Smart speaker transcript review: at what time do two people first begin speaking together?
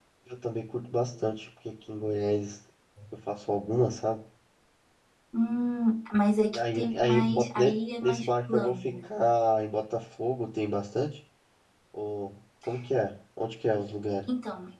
6.5 s

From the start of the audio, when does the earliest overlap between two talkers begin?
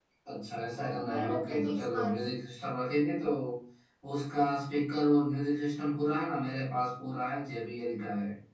0.8 s

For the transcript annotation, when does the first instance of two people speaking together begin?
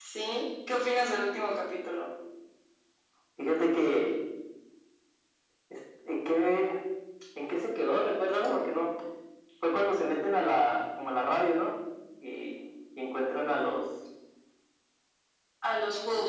none

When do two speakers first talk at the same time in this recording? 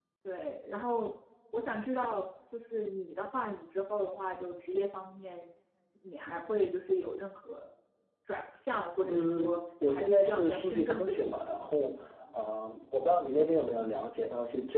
9.1 s

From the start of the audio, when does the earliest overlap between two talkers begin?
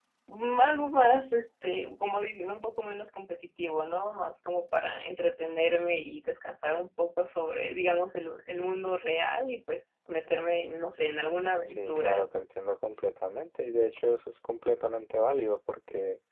11.0 s

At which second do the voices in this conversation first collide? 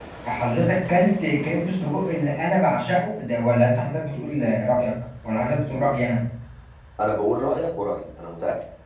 none

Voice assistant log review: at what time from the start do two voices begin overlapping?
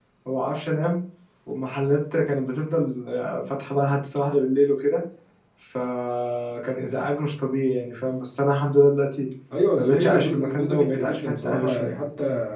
9.8 s

